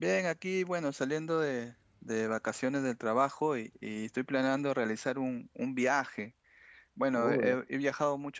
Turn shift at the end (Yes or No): No